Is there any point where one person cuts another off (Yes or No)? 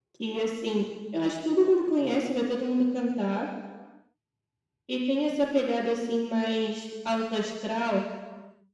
No